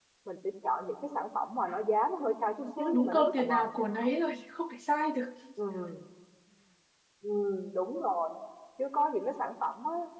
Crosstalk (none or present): present